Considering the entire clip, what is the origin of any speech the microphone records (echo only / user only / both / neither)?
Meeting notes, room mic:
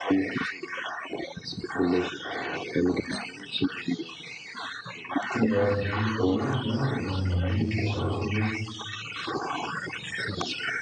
both